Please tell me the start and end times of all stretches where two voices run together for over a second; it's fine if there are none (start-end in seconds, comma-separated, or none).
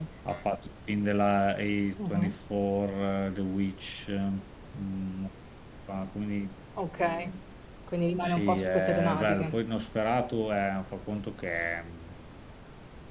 8.2-9.5